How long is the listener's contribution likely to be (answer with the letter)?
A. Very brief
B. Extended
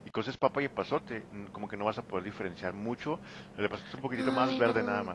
B